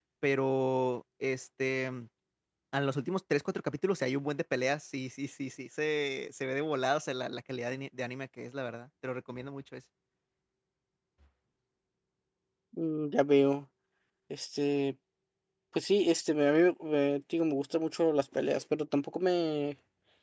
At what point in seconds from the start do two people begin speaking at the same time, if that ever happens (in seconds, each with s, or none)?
none